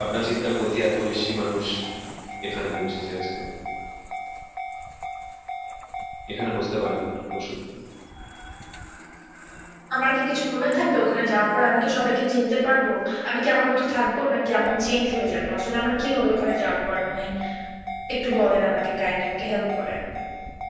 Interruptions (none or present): none